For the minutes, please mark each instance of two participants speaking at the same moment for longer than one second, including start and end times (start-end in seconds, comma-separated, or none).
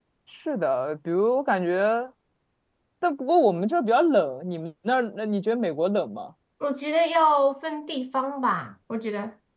none